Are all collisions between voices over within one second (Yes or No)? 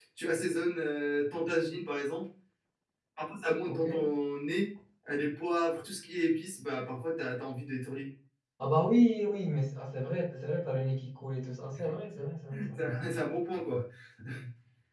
Yes